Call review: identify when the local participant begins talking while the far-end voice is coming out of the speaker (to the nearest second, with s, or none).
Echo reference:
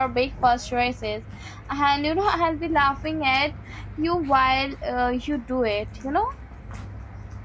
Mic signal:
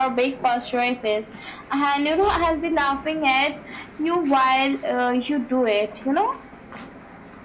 none